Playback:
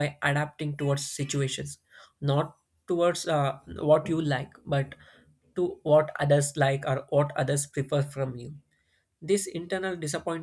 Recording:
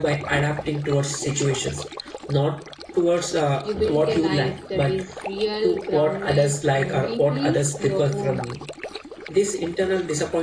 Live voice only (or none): you built a life that is real, grounded, and deeply your own.